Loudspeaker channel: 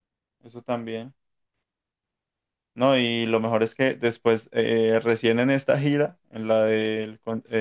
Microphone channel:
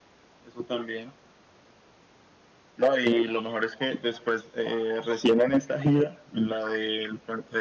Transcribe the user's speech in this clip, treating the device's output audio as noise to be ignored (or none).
none